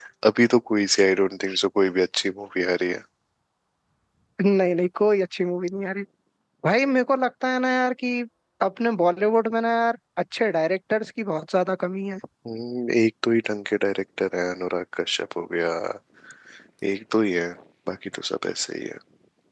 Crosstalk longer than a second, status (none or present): none